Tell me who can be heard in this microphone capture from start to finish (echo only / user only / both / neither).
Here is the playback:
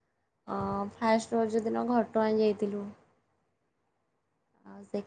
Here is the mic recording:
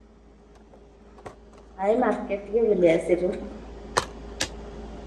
user only